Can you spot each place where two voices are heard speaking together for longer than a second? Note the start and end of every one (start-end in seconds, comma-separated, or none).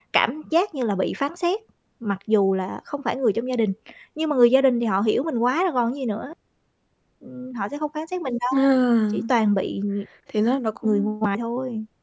none